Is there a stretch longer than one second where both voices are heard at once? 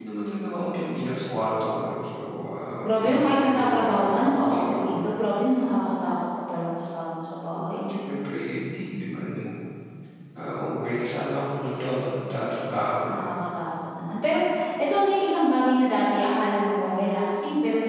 Yes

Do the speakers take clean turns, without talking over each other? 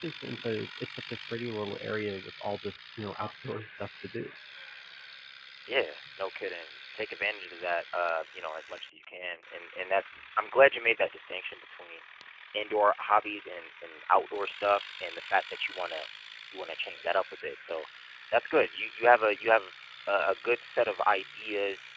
Yes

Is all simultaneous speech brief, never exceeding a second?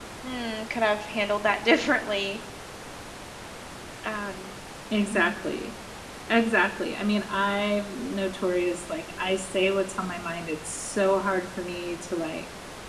Yes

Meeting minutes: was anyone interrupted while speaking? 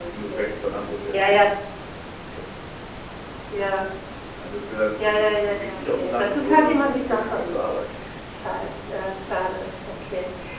Yes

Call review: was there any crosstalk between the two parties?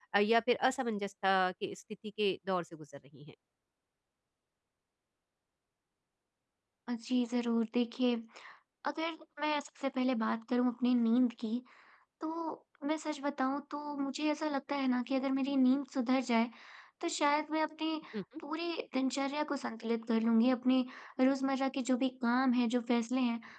No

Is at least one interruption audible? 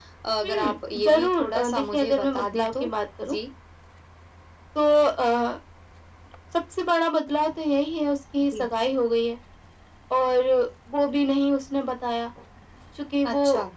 Yes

